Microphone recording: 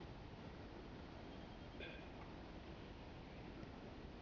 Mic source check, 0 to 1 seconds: neither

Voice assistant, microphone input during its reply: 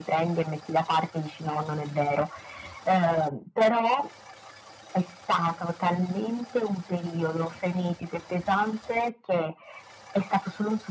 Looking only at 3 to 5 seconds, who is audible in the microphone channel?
echo only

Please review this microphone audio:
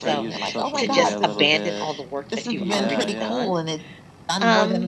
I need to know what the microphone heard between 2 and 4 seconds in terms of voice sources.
both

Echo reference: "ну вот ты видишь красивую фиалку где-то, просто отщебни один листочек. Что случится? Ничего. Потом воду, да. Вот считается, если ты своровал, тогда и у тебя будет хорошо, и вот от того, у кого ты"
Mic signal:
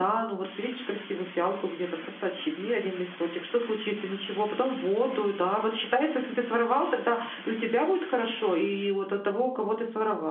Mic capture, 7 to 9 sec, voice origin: echo only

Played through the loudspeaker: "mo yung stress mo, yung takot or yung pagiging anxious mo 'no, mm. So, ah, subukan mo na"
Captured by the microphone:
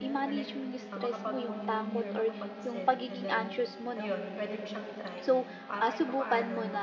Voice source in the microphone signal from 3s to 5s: both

